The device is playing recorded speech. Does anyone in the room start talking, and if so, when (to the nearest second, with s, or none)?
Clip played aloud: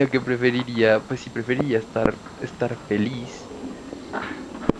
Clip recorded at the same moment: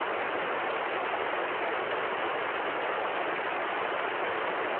none